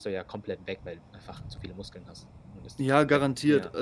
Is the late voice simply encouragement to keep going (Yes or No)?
No